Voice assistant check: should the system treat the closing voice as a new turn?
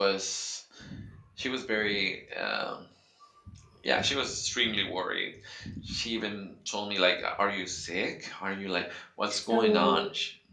No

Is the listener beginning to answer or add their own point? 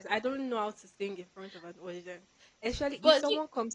No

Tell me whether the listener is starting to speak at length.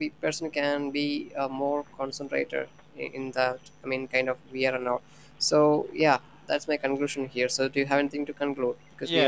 Yes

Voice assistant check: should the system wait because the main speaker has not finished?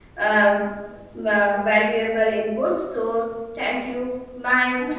No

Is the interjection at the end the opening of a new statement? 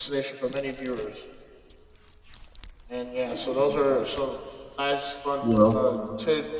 No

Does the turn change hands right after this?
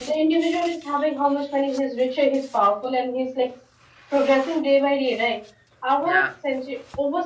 No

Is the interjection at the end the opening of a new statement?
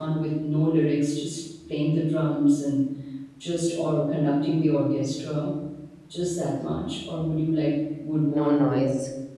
No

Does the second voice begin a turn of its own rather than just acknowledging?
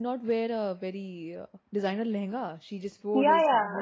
Yes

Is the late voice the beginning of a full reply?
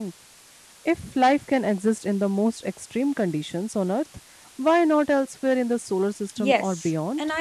Yes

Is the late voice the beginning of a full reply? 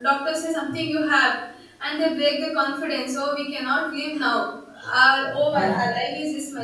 No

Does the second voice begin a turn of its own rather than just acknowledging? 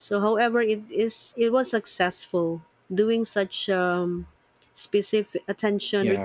No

